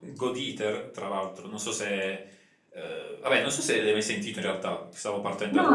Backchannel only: No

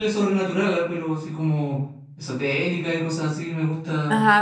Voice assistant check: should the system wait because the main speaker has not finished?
No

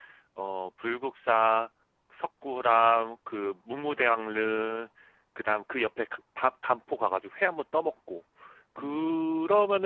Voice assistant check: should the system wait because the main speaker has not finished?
Yes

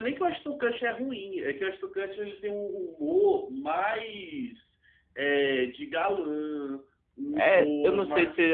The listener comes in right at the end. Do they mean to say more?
Yes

